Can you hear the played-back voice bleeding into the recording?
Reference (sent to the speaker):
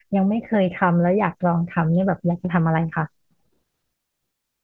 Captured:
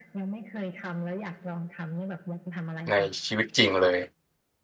Yes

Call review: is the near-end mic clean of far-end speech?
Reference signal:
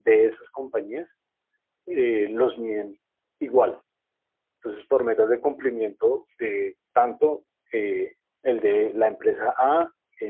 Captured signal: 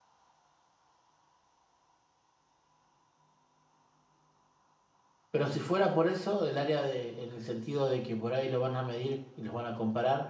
Yes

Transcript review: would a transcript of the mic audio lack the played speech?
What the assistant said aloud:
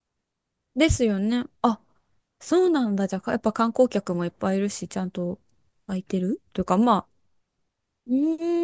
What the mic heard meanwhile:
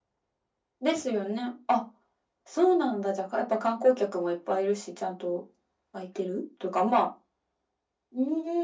No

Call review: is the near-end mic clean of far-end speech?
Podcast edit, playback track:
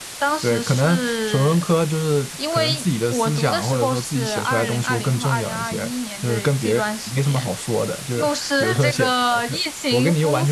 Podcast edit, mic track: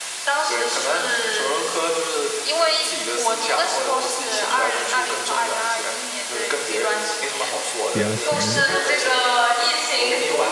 No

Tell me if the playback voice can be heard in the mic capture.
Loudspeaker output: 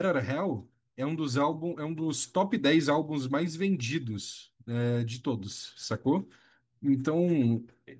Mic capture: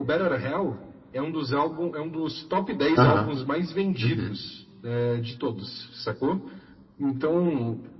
Yes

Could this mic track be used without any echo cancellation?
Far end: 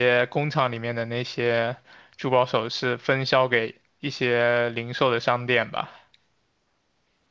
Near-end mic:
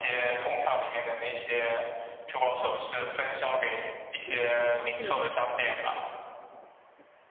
No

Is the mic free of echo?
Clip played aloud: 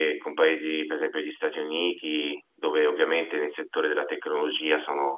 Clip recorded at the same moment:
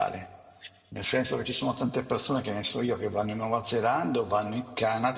Yes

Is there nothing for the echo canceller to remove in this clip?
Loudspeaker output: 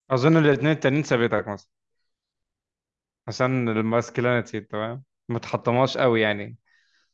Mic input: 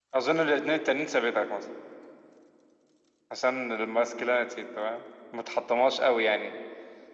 No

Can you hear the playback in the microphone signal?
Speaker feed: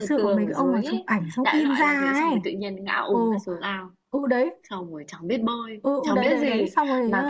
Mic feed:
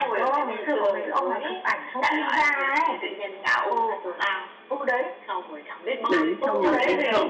Yes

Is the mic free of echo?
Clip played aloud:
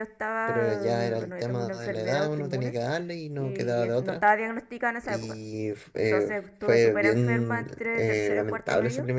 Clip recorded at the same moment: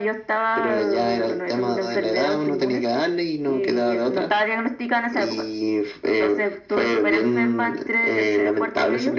No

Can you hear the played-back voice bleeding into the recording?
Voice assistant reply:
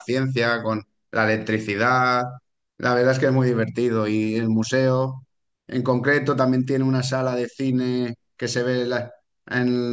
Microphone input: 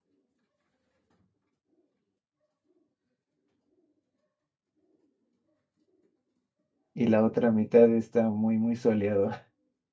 No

